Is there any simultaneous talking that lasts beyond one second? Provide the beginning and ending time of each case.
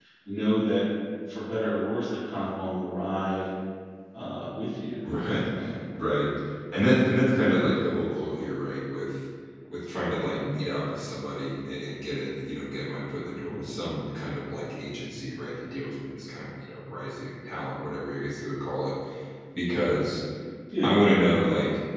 none

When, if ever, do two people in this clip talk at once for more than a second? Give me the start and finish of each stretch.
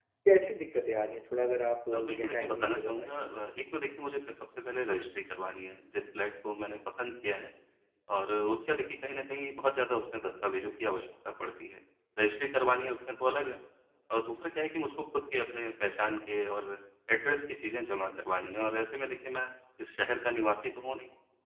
1.9-3.2

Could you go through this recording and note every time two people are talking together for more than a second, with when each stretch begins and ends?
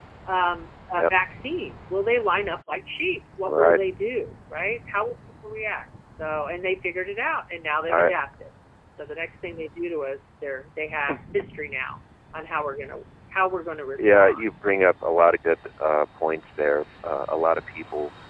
none

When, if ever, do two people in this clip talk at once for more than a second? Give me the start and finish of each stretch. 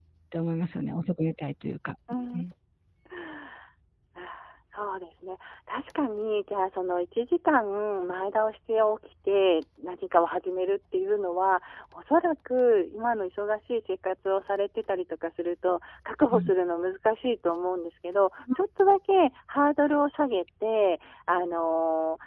none

